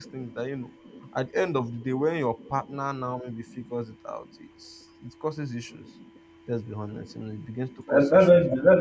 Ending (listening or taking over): taking over